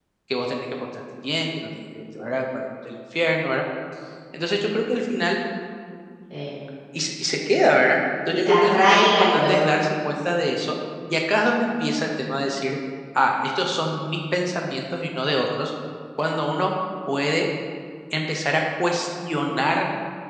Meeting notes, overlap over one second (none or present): present